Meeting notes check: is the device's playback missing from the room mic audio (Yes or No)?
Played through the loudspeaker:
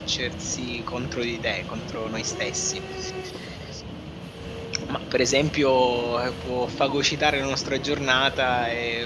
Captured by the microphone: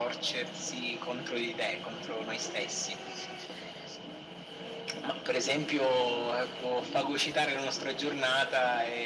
No